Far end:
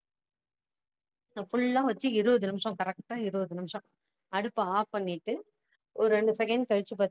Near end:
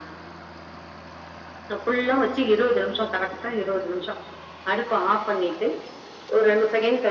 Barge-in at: none

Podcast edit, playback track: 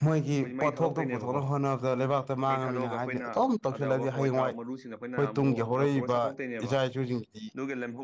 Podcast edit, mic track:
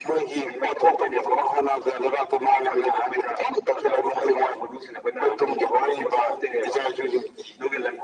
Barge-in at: none

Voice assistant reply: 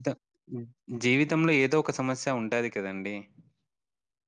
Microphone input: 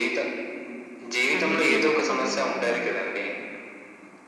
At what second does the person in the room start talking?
1.4 s

